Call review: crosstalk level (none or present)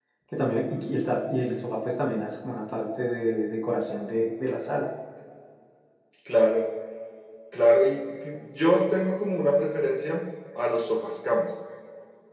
none